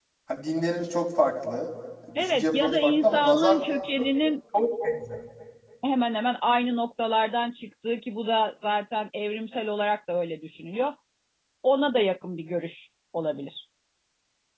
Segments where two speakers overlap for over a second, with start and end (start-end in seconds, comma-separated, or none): 2.1-3.6